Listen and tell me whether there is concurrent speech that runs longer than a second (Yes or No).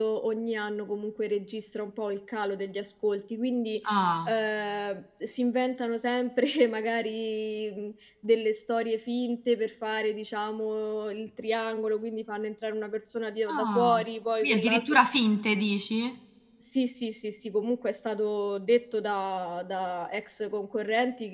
No